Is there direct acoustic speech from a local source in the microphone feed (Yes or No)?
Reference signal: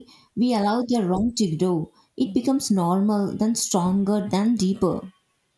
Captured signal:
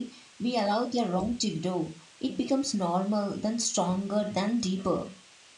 No